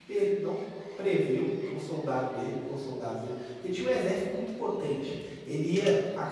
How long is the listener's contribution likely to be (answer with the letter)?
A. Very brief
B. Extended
A